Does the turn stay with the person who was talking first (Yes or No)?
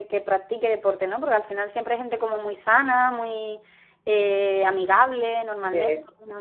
No